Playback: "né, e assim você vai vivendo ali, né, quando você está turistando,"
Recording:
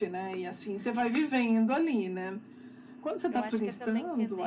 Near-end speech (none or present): present